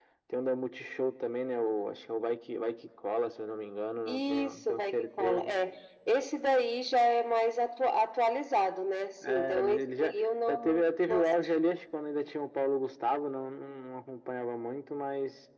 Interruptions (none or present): present